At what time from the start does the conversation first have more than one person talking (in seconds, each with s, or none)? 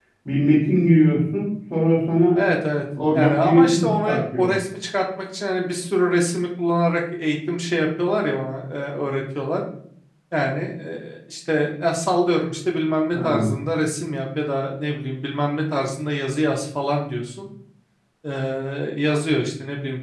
3.1 s